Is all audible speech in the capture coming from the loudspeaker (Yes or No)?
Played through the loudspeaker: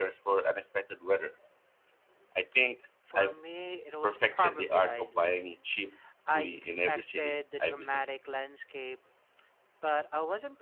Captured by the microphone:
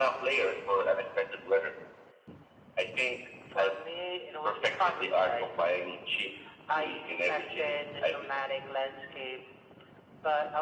Yes